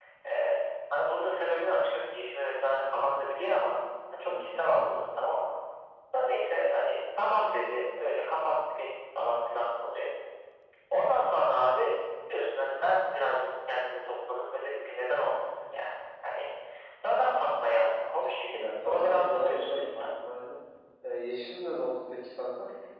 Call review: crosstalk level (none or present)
present